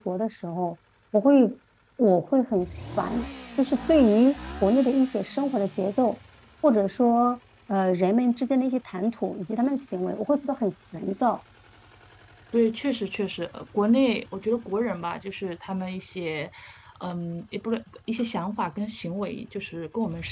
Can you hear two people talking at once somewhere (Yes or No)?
No